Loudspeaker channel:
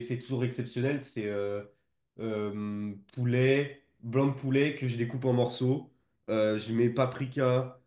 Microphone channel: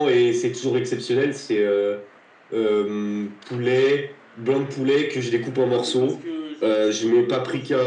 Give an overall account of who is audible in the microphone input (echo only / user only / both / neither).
both